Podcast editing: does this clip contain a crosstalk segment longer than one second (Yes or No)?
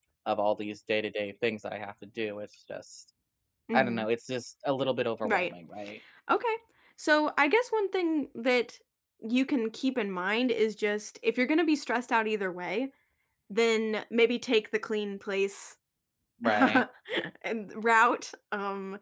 No